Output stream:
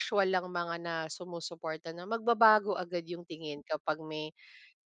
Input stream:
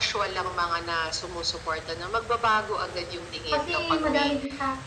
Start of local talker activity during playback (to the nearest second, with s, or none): 4 s